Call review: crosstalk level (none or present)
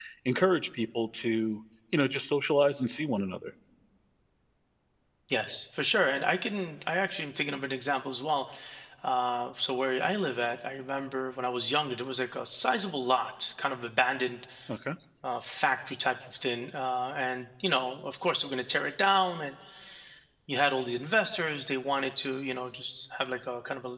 none